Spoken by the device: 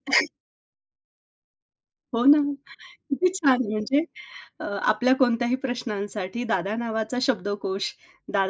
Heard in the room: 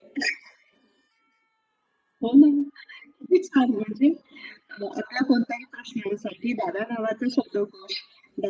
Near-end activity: none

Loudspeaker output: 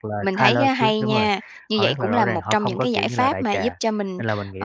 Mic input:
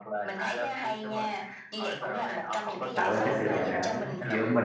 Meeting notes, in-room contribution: present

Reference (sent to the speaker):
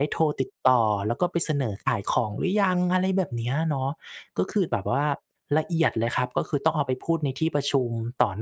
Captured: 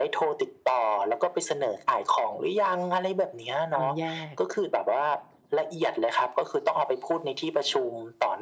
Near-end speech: present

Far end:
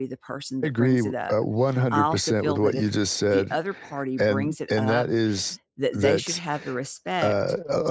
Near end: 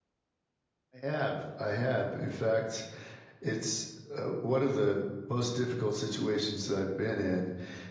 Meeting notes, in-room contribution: present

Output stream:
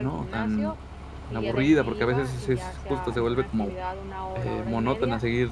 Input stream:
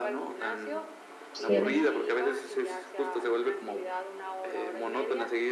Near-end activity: present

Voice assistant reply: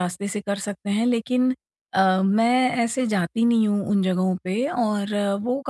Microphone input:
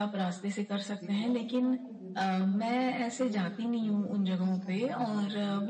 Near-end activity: present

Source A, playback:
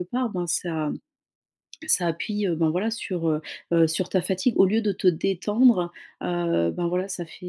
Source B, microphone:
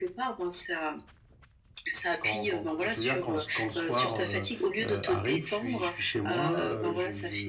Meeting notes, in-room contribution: present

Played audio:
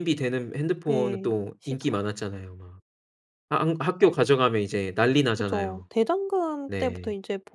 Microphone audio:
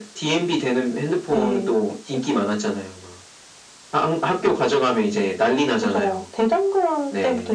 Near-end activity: none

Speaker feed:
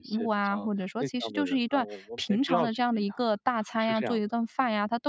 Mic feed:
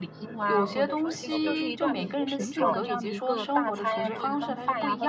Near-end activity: present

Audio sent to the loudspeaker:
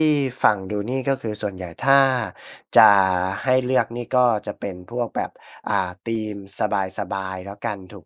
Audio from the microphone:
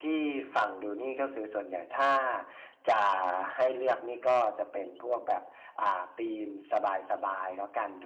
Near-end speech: none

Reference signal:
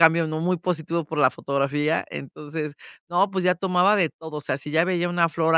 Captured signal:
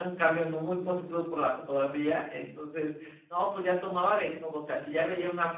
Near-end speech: none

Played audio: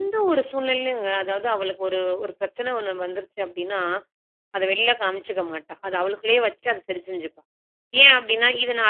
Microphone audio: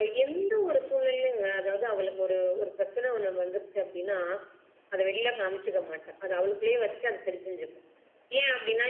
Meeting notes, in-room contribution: none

